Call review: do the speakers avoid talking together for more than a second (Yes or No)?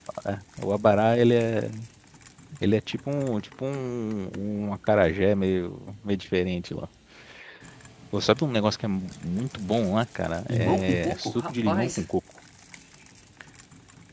No